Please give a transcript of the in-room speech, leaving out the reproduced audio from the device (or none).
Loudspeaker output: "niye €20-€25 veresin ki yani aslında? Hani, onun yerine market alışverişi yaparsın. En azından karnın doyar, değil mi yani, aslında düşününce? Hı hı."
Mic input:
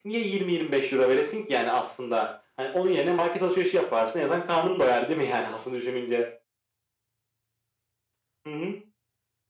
none